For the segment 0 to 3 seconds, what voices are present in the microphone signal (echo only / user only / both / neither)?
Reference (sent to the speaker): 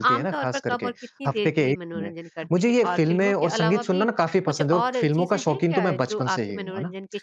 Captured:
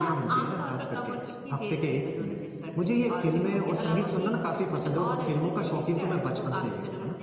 echo only